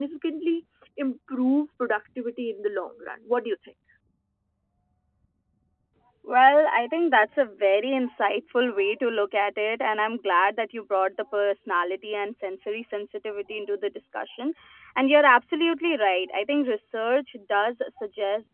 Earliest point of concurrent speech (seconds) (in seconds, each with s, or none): none